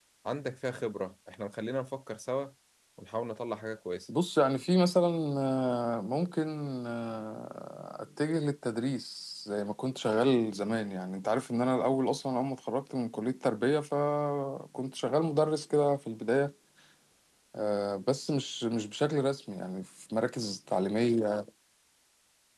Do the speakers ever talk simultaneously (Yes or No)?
No